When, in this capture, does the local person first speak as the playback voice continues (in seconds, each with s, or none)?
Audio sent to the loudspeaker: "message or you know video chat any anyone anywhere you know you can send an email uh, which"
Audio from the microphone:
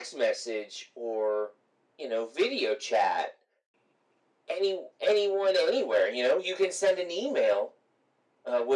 none